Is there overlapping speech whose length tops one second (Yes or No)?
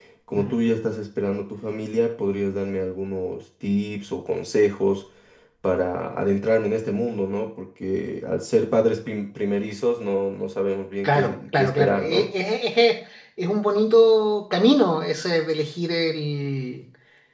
Yes